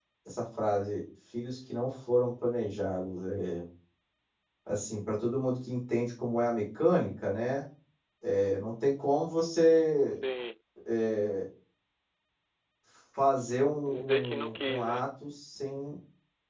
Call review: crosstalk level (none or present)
present